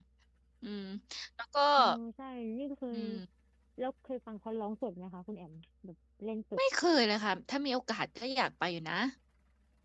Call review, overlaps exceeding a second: none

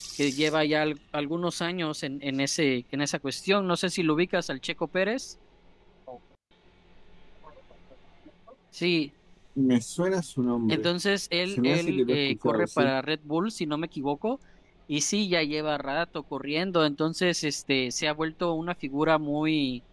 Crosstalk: present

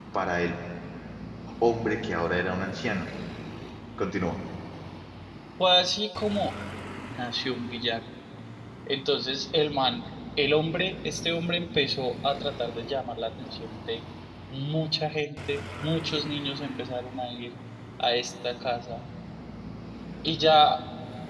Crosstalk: none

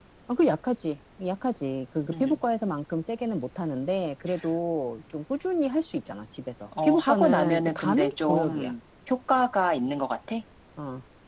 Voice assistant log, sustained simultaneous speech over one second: present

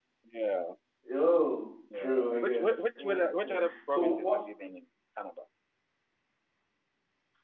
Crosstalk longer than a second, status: present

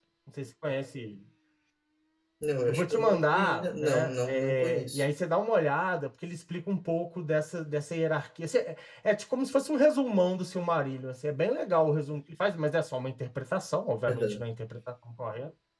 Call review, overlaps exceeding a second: present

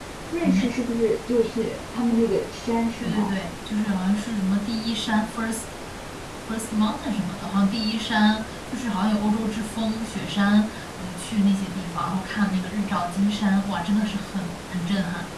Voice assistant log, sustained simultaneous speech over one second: none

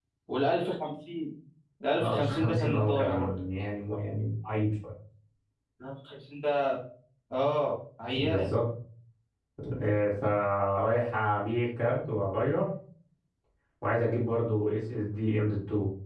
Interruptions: present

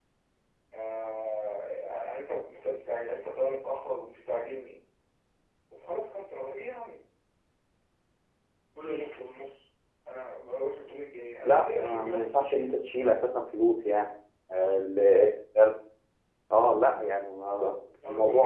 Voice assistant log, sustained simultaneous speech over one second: present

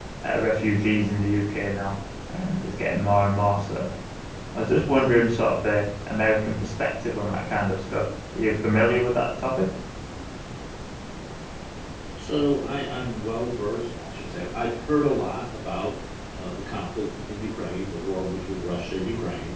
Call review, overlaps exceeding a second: none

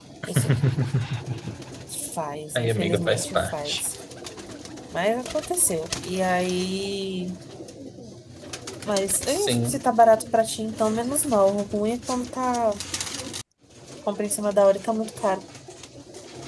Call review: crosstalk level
present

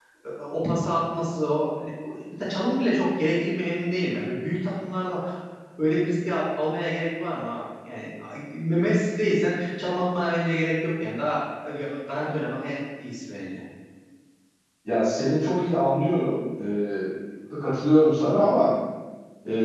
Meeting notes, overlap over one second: none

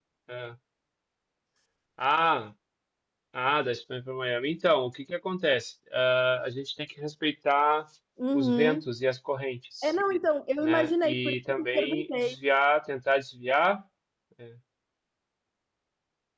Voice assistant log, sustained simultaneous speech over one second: present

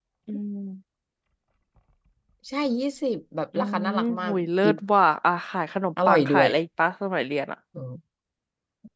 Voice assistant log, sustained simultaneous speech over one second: present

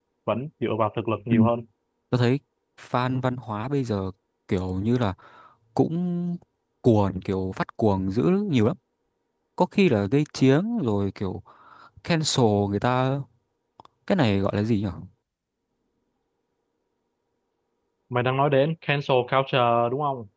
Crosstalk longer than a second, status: none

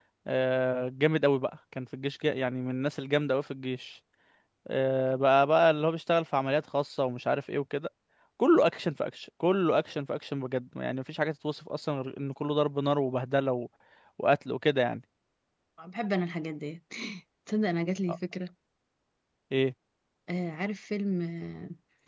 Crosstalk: none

